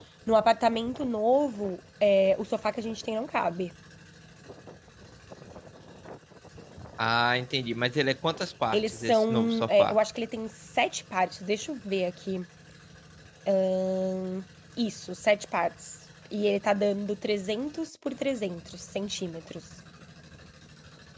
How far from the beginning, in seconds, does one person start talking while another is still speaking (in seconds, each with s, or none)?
8.7 s